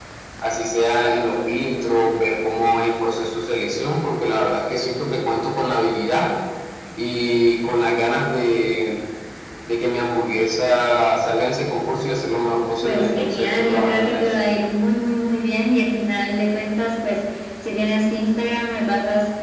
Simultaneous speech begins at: 12.8 s

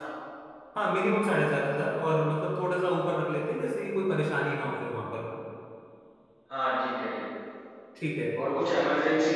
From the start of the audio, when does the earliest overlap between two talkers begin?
none

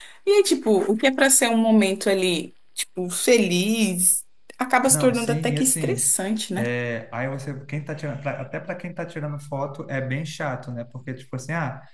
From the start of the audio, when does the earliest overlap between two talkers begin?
4.9 s

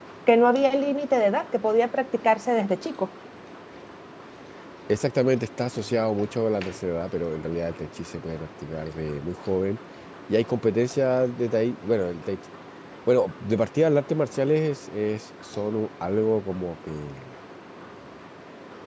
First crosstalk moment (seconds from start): none

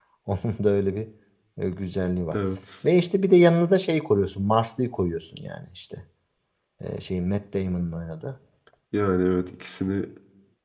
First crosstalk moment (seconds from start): none

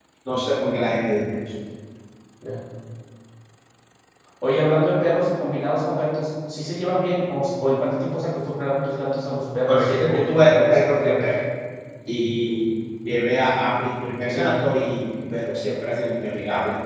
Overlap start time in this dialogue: 9.7 s

